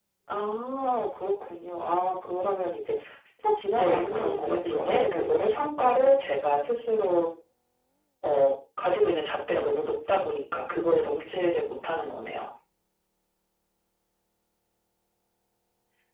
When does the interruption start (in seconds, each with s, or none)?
3.7 s